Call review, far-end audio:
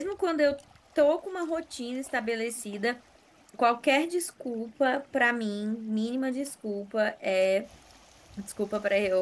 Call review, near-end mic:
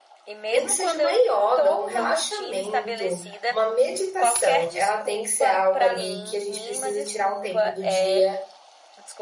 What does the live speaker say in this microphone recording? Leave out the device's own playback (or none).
nem que seja uma yoga, um relaxamento, uma meditação, ela tem que ser algo ali que a gente precisa tirar um tempo do dia